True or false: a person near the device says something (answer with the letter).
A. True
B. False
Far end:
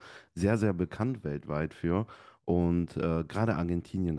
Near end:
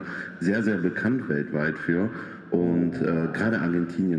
A